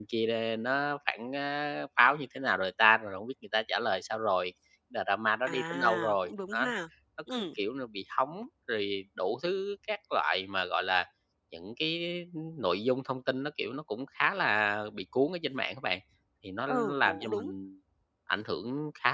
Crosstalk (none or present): present